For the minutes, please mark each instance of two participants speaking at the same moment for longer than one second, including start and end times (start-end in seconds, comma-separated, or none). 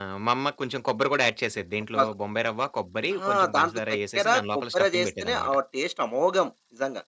3.3-5.5